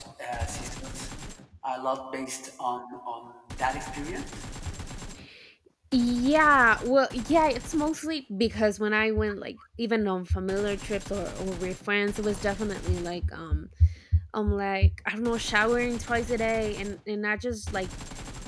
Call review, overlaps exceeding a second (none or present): none